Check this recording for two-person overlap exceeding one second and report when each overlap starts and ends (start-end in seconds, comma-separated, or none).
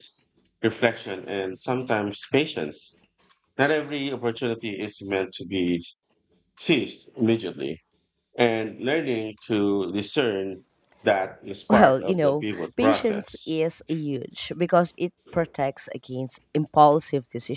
11.7-13.5